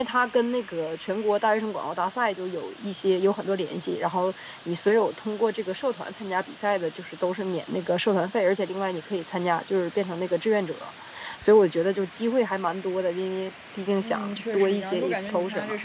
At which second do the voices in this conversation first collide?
14.0 s

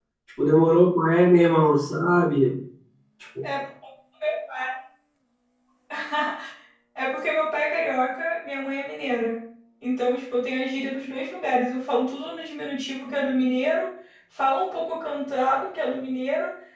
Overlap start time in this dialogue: none

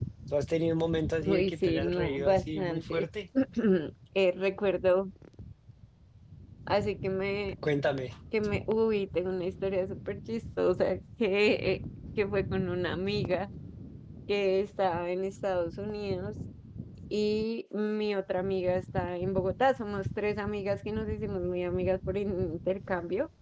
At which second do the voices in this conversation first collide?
1.2 s

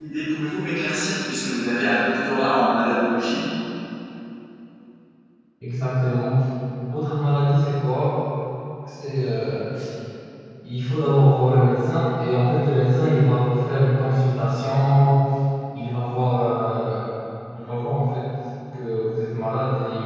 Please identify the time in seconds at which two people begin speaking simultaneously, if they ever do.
none

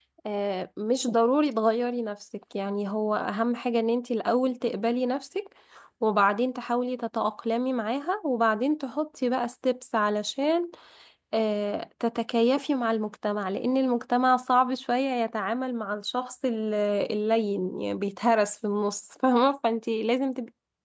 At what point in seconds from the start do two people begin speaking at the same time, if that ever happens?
none

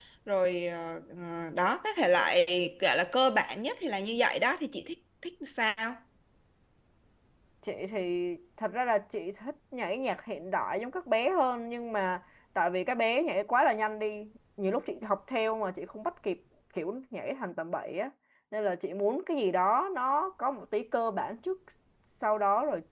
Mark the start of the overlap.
none

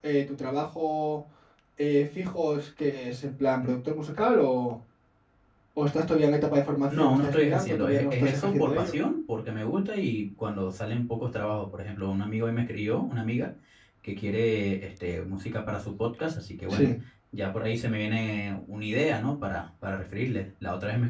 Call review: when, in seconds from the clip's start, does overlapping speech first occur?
6.9 s

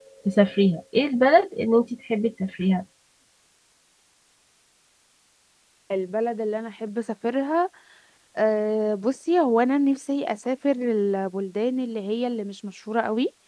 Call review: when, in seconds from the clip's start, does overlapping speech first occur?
none

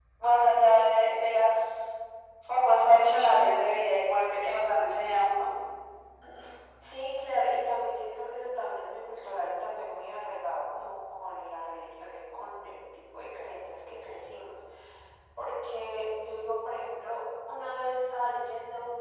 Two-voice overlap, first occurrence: none

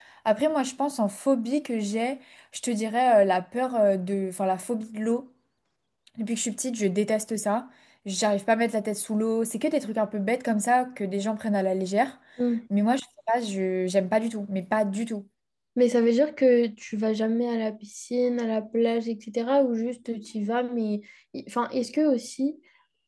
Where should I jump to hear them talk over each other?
none

